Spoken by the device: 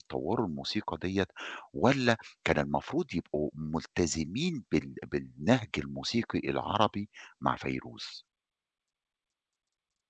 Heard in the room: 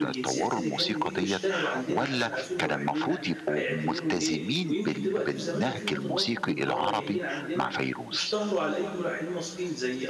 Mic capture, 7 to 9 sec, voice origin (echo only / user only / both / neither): both